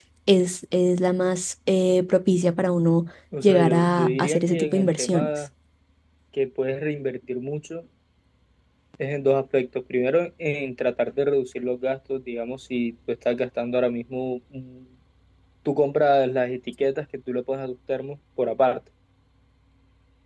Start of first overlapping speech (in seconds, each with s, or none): 3.3 s